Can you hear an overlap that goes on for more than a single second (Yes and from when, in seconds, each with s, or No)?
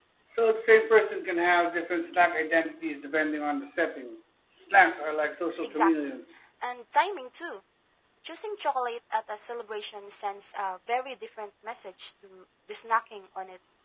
No